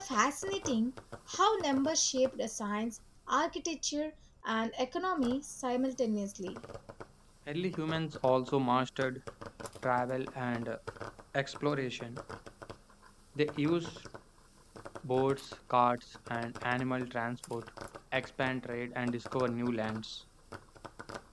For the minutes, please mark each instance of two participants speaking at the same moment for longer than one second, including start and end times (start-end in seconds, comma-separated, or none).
none